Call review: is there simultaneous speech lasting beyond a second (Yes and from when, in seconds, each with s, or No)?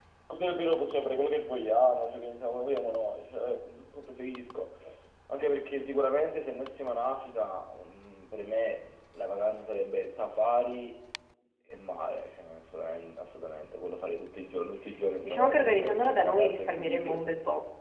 Yes, from 15.2 s